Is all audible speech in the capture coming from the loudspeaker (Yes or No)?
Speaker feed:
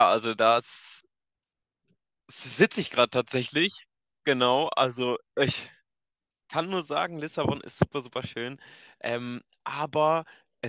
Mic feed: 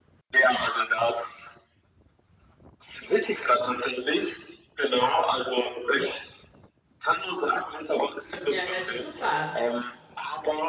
No